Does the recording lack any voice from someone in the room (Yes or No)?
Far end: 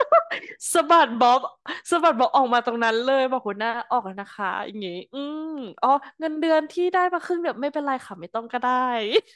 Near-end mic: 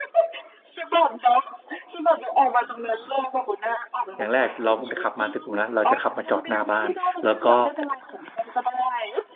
No